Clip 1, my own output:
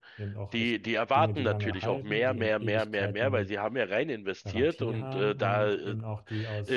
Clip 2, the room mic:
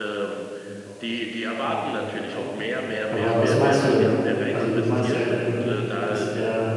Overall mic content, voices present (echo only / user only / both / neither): both